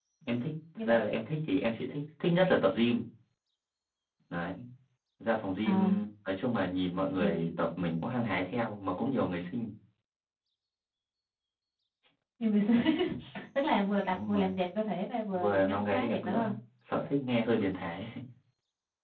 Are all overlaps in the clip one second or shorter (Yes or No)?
No